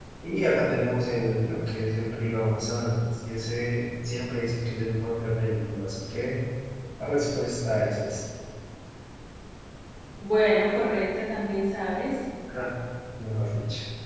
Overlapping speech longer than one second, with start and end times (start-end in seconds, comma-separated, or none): none